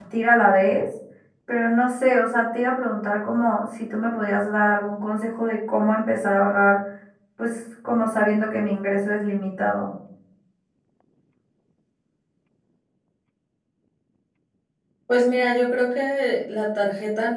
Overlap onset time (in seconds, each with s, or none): none